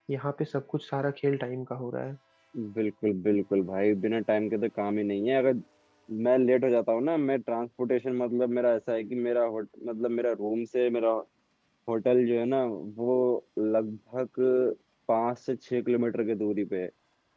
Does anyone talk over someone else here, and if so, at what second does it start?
none

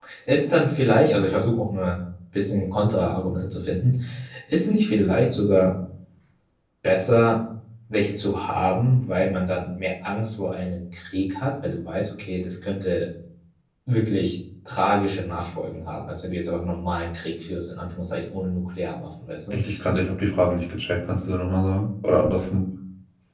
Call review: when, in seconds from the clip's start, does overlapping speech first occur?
none

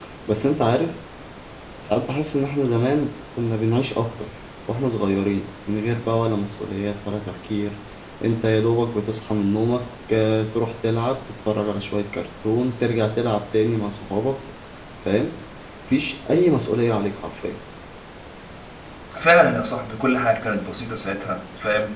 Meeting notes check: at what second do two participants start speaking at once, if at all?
none

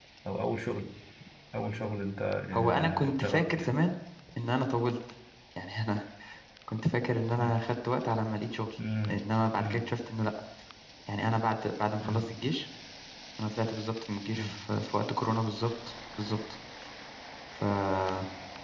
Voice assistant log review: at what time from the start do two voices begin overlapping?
2.5 s

